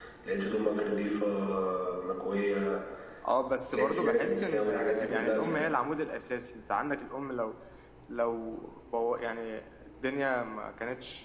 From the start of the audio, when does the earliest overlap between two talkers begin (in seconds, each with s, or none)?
3.7 s